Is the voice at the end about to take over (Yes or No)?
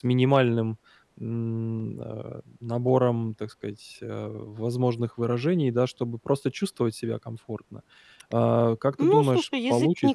Yes